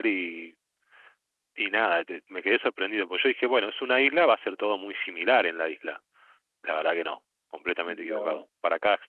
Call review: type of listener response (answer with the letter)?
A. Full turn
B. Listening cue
B